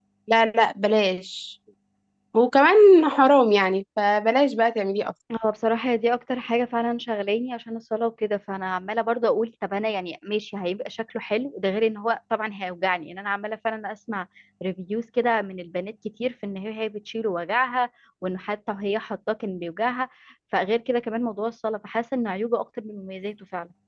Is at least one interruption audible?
No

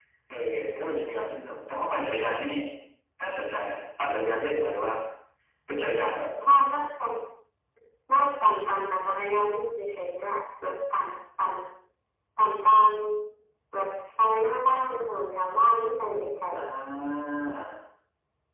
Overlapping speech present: No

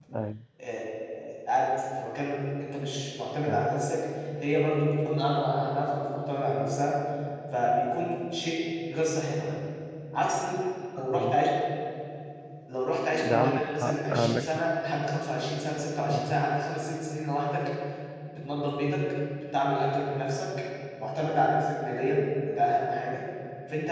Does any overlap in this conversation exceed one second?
Yes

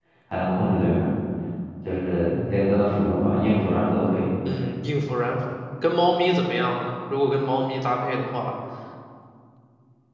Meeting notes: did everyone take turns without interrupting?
Yes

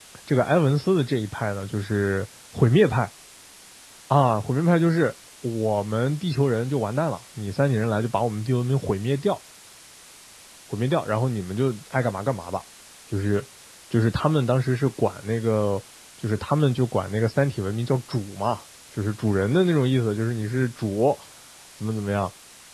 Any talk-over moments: No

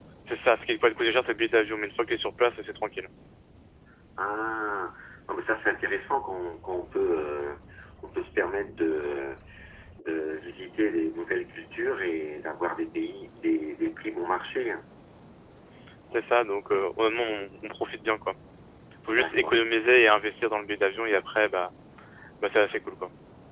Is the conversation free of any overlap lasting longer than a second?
Yes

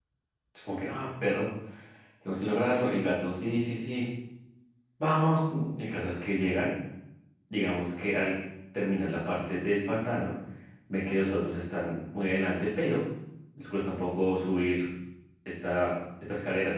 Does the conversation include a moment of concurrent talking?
No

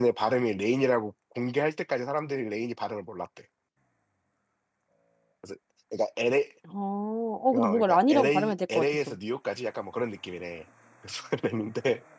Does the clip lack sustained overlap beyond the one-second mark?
No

